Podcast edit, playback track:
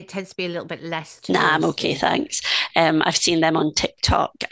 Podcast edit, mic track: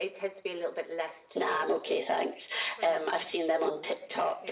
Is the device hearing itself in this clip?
Yes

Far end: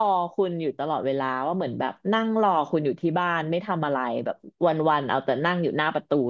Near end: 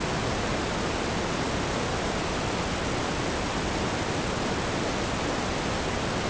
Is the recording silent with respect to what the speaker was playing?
Yes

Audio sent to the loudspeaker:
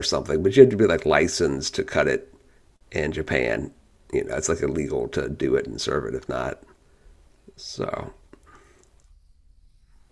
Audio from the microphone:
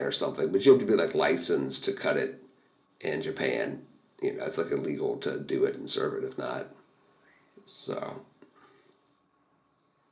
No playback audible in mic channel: No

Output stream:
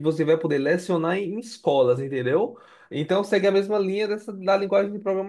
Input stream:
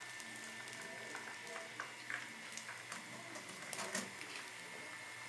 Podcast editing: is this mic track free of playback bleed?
Yes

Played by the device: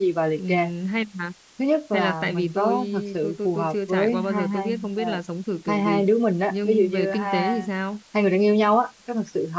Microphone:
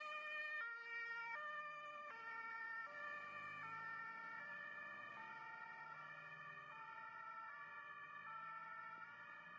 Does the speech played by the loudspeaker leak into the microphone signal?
No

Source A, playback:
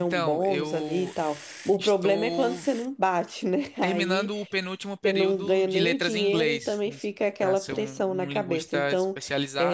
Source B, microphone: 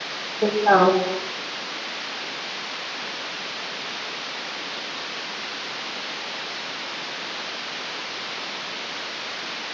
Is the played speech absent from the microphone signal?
Yes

